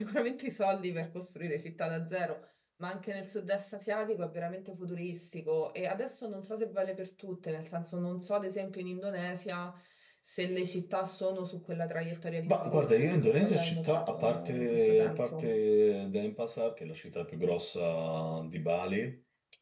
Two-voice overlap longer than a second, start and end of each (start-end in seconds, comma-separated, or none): 12.5-15.6